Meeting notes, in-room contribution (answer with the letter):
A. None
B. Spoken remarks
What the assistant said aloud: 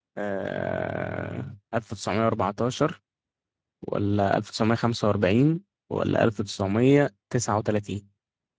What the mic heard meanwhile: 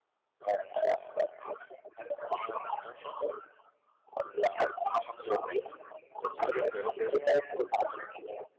B